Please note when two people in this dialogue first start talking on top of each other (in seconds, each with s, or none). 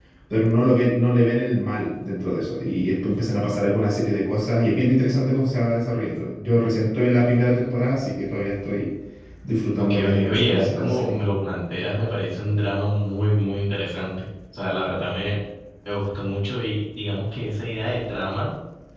9.8 s